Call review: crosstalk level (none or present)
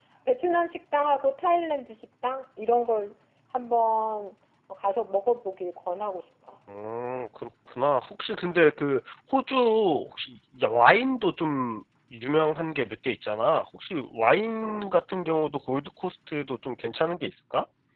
none